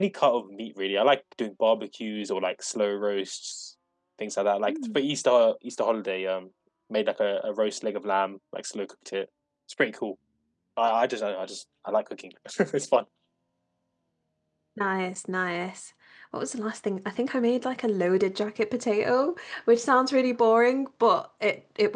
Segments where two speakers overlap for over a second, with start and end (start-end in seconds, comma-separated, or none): none